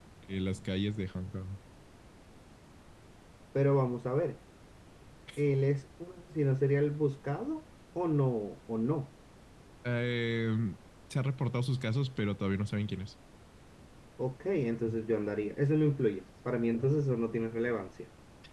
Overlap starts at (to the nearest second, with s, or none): none